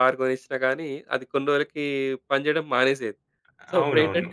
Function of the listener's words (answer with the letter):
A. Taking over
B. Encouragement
B